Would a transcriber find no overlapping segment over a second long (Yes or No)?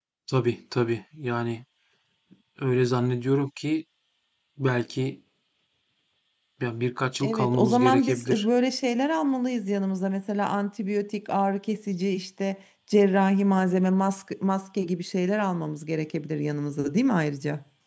No